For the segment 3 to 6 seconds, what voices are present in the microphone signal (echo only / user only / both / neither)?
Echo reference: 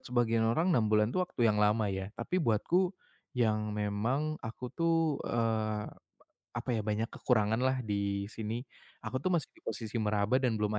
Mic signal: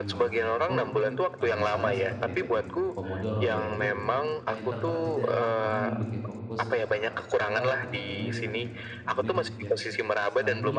both